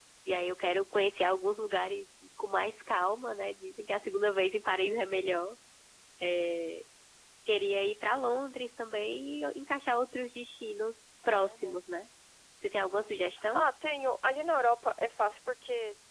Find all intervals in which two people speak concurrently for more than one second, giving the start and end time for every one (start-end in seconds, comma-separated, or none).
none